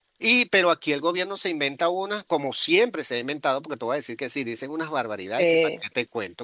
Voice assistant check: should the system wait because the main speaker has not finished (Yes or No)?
Yes